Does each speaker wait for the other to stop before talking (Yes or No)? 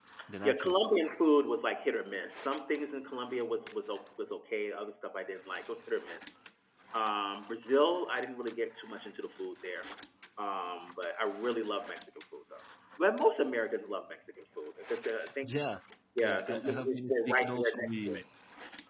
No